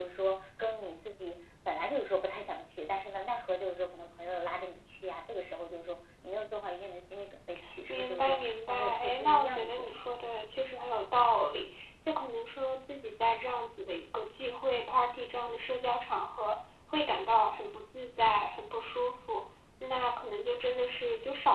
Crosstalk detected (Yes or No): Yes